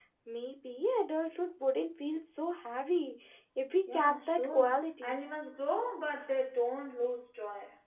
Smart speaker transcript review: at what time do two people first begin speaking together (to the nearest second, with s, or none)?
4 s